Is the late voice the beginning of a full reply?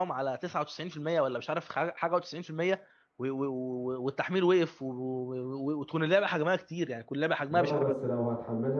Yes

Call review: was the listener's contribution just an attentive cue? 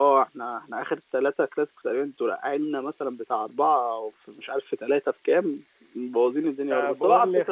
No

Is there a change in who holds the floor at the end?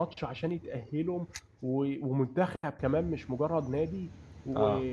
No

